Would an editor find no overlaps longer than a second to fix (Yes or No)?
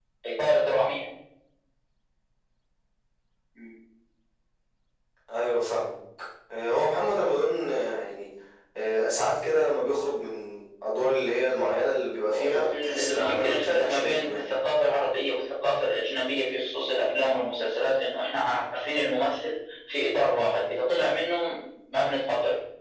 No